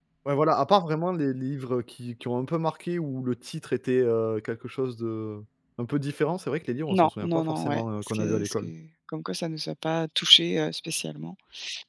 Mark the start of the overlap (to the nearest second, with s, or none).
7 s